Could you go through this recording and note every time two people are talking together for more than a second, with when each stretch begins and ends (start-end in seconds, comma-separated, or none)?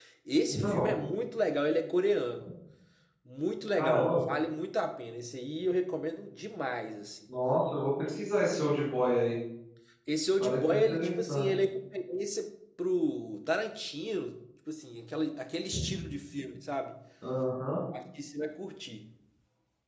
10.4-11.6